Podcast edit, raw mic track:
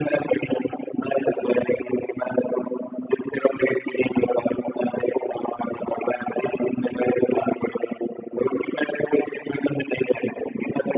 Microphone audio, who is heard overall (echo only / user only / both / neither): echo only